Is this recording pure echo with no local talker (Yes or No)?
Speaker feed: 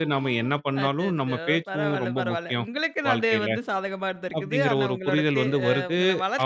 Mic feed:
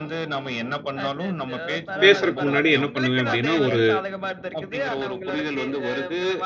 No